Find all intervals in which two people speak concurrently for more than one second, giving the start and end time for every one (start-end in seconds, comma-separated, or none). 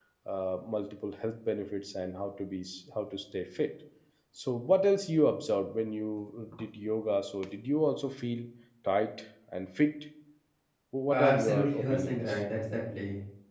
11.1-12.4